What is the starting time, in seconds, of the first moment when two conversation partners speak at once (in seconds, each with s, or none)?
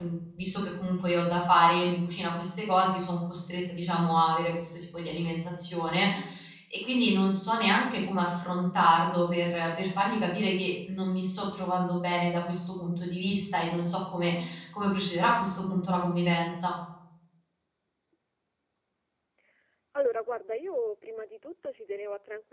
none